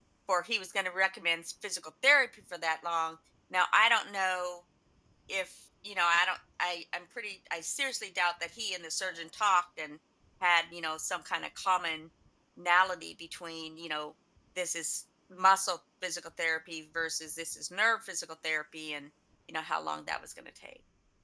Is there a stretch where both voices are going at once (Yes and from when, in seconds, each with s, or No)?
No